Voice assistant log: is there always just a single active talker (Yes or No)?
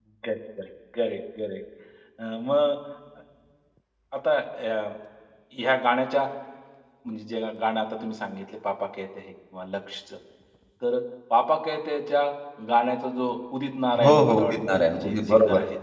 No